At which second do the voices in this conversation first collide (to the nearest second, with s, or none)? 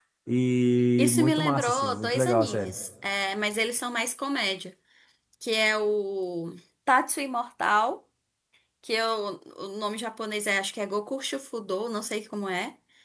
1 s